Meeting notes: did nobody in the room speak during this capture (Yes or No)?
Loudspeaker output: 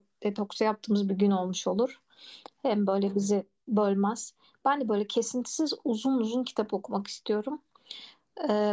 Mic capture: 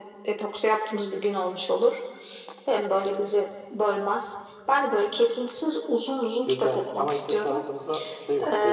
No